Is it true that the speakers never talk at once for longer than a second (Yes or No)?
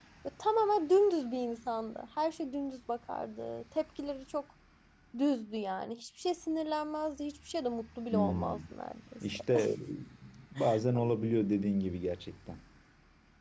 Yes